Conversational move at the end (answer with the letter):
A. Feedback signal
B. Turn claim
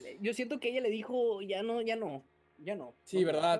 B